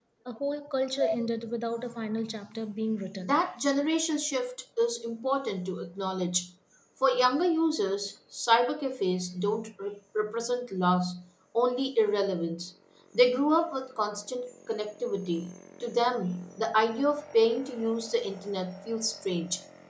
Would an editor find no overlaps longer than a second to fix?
Yes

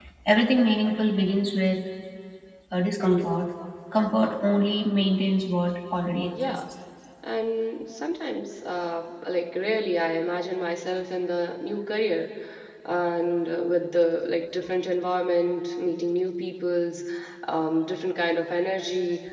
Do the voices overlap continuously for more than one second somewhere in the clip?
No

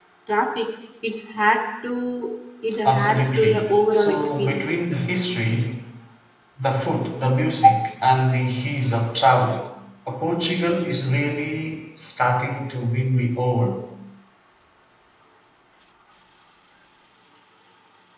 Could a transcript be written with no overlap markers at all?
No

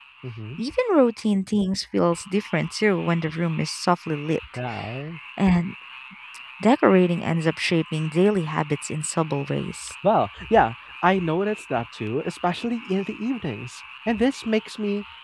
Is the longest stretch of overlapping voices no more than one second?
Yes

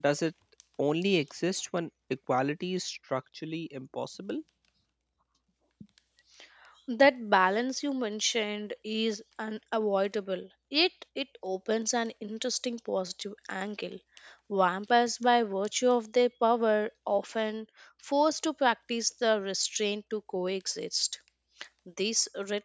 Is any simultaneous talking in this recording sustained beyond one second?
No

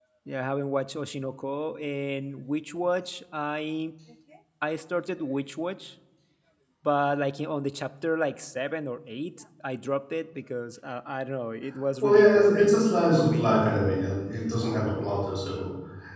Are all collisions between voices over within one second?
No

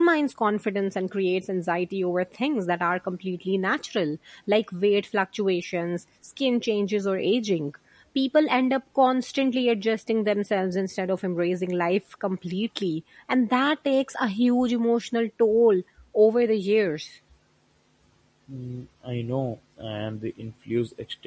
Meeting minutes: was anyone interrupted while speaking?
No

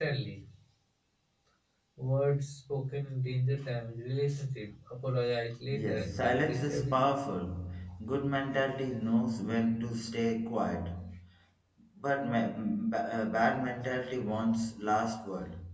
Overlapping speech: Yes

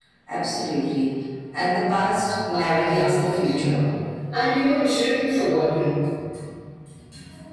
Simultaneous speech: Yes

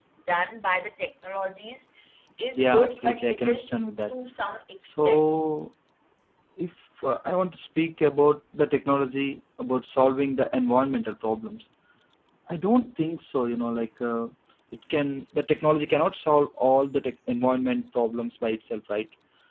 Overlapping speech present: Yes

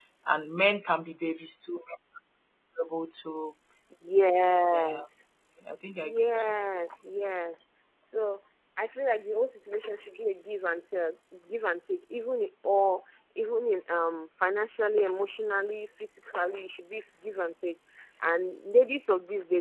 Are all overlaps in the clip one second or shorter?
Yes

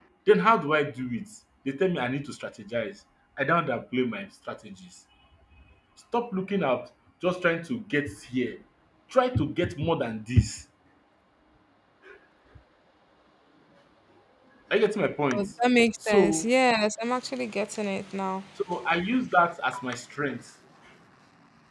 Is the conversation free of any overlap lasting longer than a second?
Yes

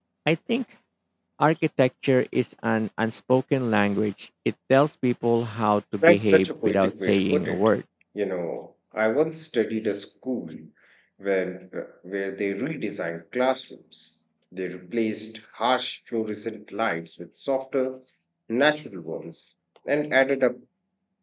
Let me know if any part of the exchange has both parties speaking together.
Yes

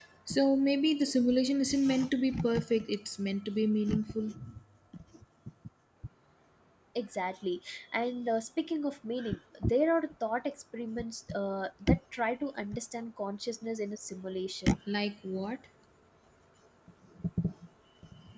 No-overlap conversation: Yes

